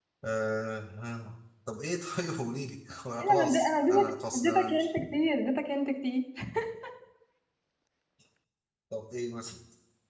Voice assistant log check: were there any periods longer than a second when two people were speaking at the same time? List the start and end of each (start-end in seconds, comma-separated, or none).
3.3-4.9